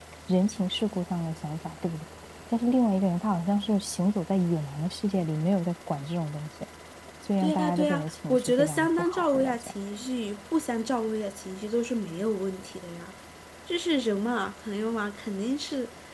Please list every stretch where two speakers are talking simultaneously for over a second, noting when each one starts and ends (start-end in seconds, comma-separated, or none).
7.4-9.7